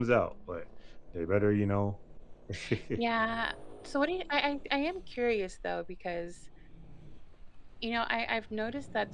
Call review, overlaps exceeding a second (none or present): none